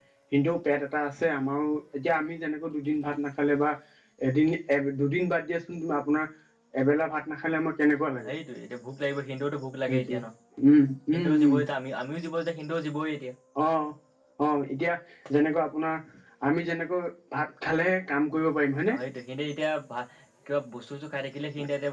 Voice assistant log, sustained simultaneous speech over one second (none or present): none